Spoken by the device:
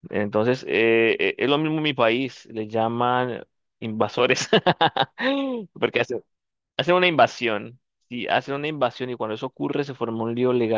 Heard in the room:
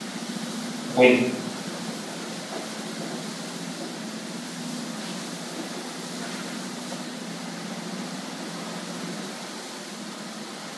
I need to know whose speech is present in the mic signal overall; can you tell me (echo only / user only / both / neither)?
user only